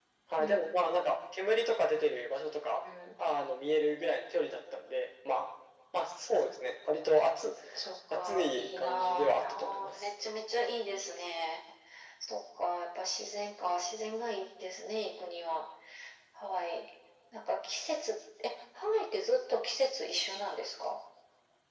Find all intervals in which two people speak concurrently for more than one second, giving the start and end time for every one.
8.1-10.1

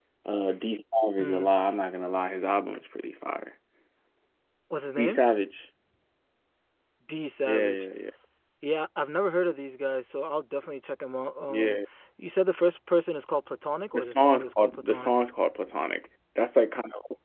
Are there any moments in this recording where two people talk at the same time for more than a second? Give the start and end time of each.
13.9-15.2

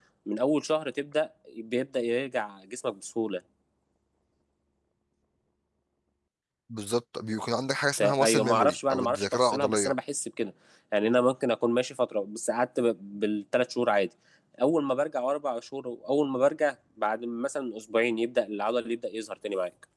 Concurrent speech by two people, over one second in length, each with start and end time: 8.0-9.9

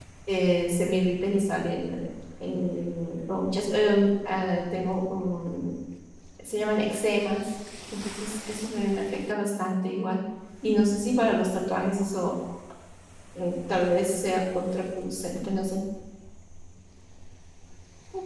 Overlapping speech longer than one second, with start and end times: none

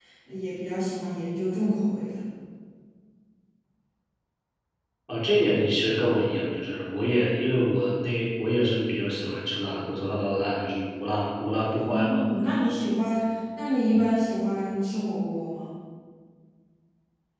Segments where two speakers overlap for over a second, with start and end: none

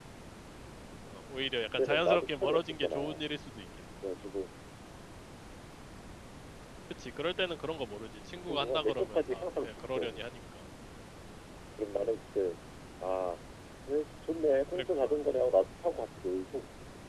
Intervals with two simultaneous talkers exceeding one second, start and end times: 1.8-3.2, 8.3-10.2

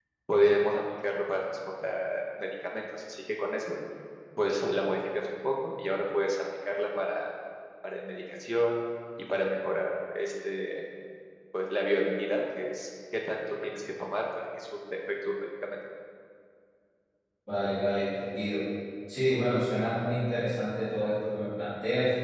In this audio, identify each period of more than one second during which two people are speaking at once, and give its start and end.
none

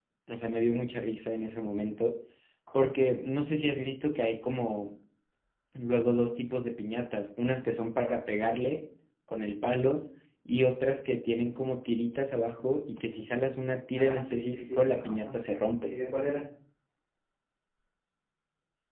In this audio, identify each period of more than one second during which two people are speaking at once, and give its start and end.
13.9-15.3

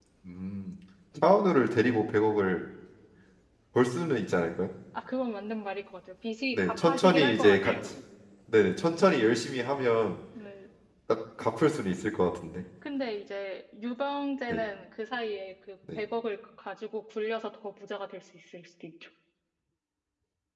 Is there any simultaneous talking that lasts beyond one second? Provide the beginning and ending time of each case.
6.5-7.7

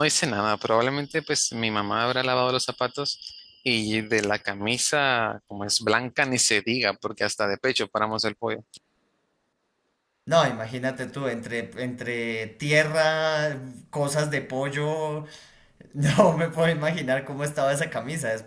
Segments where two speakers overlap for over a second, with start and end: none

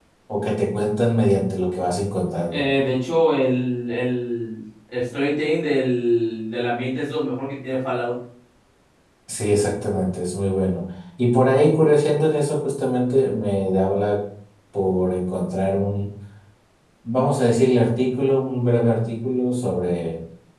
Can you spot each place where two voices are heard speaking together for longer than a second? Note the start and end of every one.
none

